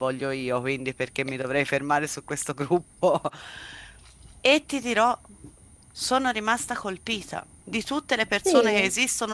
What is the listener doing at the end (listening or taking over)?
listening